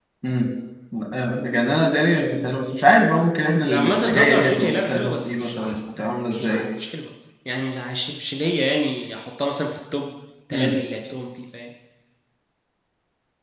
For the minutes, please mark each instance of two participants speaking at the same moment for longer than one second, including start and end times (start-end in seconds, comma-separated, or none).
3.6-6.7